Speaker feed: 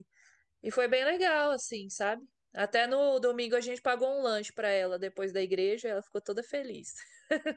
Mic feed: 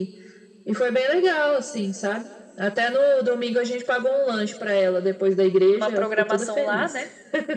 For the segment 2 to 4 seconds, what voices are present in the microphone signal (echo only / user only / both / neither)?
echo only